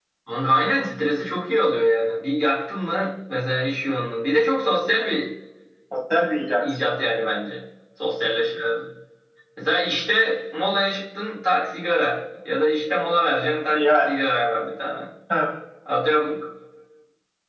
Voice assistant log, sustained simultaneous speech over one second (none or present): none